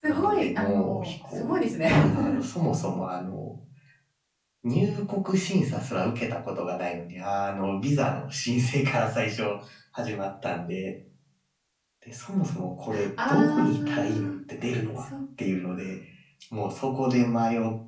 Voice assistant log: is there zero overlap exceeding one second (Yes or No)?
No